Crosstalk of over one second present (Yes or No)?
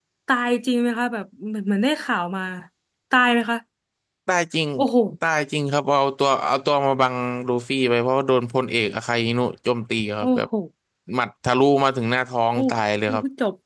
No